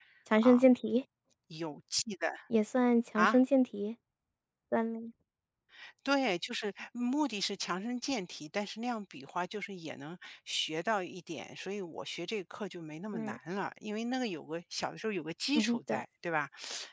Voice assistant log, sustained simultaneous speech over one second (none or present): none